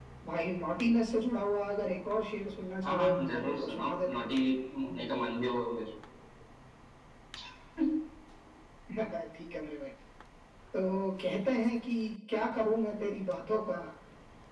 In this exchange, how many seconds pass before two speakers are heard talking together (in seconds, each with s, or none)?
2.8 s